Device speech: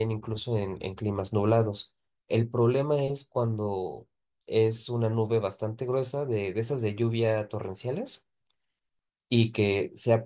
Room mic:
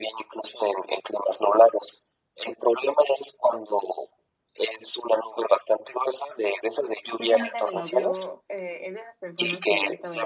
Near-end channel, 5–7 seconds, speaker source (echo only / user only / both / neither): echo only